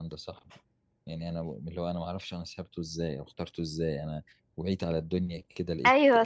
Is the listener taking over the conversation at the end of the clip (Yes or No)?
Yes